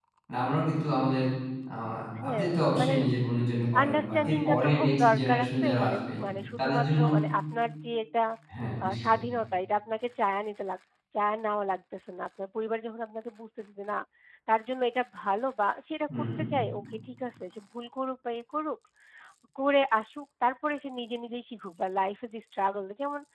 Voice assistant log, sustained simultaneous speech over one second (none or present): present